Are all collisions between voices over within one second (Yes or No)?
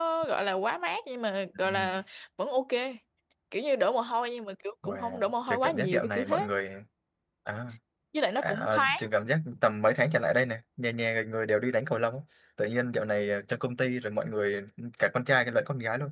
No